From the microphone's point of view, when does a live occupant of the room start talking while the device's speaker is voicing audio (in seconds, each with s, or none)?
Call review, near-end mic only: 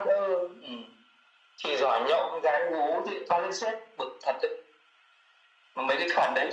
none